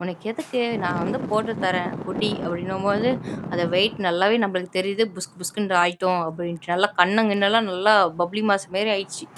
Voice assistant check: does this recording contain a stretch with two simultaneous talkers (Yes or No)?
No